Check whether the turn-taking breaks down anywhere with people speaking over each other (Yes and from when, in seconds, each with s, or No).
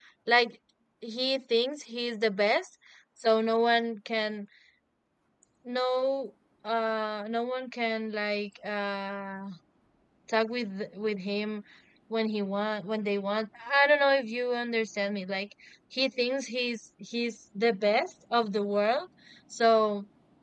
No